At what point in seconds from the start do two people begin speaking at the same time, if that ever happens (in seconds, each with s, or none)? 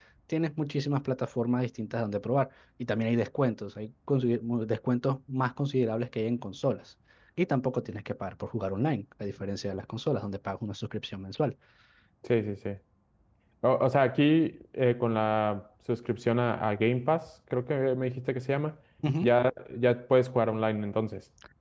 none